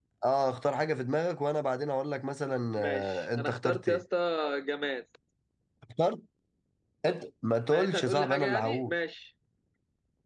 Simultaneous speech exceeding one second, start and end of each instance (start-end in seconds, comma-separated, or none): 2.8-4.0, 7.7-8.9